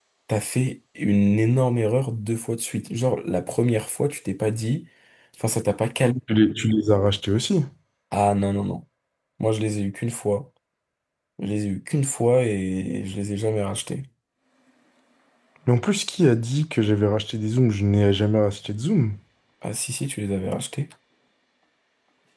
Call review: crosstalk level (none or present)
none